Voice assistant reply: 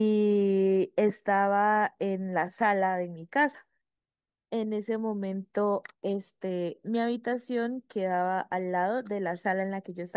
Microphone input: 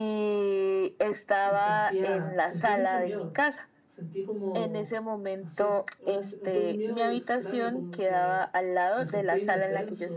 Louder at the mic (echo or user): echo